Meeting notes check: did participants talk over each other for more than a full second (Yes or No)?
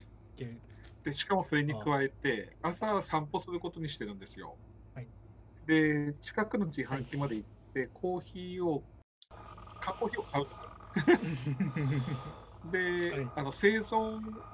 No